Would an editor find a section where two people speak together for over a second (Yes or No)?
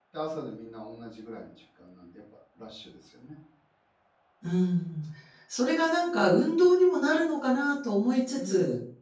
No